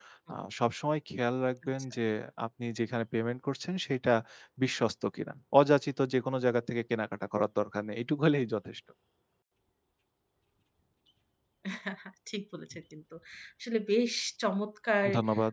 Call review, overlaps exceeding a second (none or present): none